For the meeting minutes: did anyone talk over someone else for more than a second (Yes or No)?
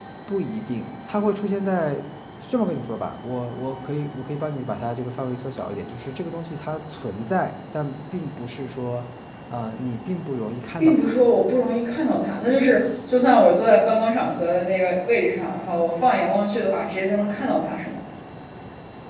No